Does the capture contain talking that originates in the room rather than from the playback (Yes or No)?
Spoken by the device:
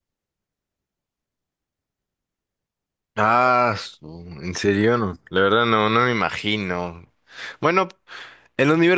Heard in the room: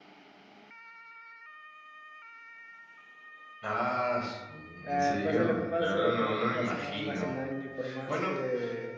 Yes